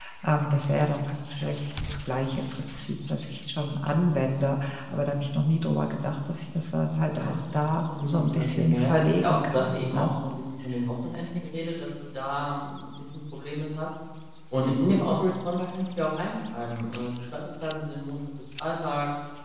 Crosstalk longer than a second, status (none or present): present